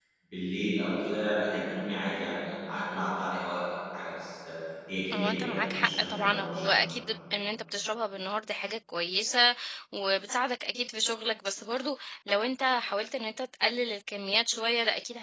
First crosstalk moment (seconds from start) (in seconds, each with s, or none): 5.1 s